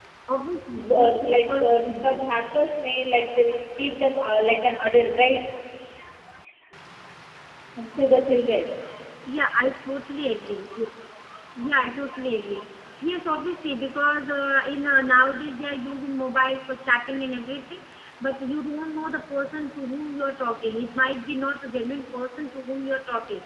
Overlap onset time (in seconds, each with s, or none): 1.0 s